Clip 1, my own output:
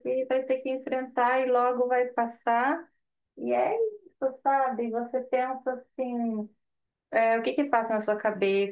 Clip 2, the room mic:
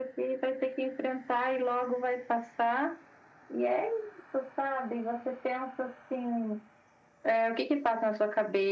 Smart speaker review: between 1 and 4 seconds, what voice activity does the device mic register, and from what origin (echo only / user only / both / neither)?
echo only